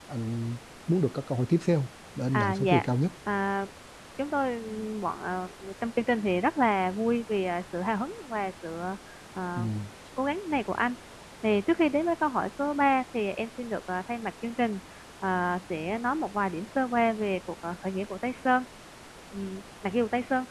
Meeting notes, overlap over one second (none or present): none